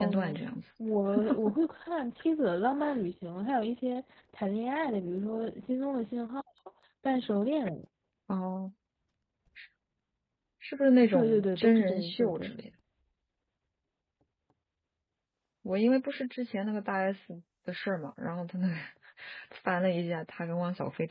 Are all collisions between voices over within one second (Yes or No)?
No